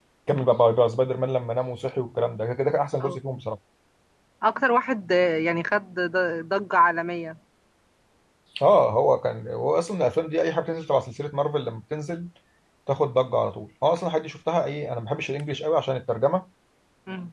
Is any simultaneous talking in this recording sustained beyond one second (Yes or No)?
No